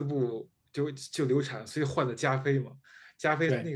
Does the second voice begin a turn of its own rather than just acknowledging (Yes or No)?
No